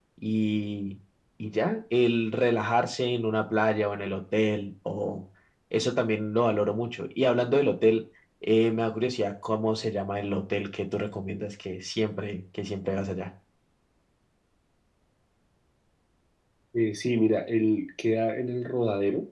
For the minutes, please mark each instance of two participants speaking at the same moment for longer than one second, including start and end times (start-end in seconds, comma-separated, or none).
none